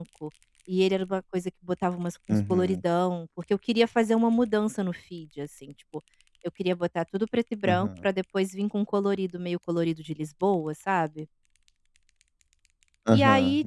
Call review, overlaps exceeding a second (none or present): none